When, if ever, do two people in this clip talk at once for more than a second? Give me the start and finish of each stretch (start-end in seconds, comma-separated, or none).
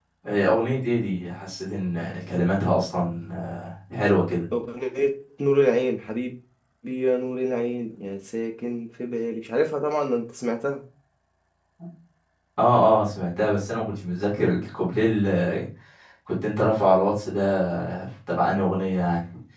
none